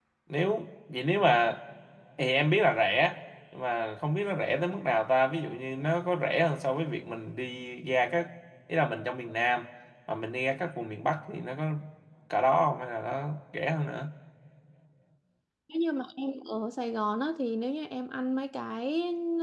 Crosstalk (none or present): none